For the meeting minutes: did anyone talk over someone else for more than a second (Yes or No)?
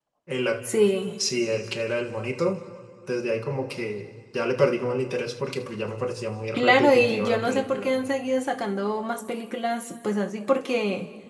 Yes